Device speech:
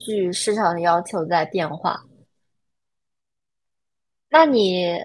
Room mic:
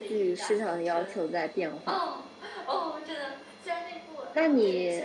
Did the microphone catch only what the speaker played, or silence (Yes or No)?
No